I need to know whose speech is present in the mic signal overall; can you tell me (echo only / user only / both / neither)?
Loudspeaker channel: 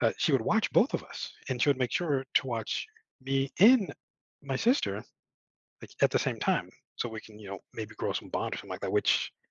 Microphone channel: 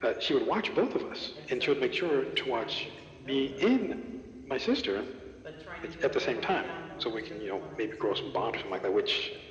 both